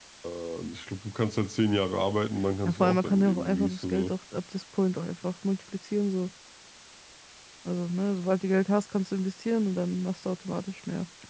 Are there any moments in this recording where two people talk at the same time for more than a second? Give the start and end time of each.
2.6-4.1

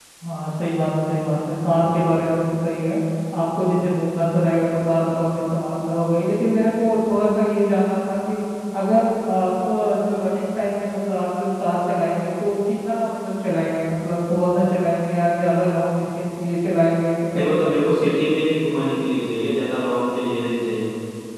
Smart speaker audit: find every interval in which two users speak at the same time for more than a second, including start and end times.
none

